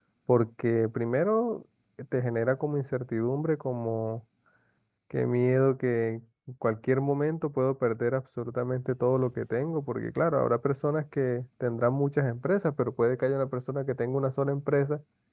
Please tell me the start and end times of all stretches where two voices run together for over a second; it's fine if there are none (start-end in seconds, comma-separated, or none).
none